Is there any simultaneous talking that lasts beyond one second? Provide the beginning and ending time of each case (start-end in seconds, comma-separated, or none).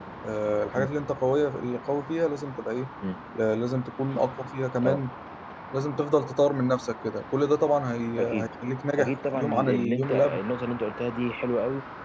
9.0-10.4